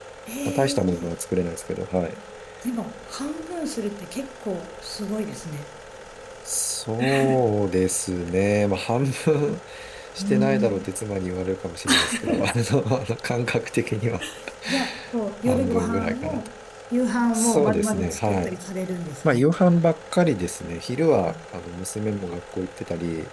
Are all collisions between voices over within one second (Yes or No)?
No